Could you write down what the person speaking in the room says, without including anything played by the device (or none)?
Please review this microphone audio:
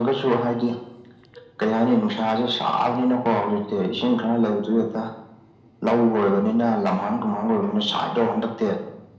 none